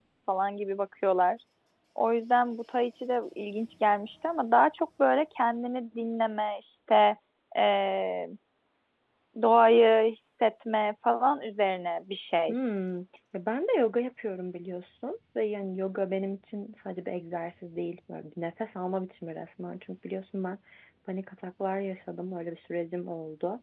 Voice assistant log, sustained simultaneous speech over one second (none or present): none